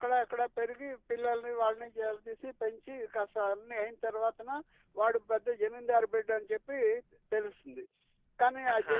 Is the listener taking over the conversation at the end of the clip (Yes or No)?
No